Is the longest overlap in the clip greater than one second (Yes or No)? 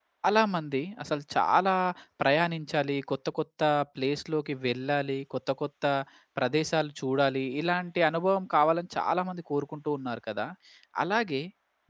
No